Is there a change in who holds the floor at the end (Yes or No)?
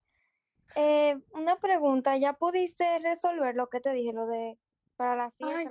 Yes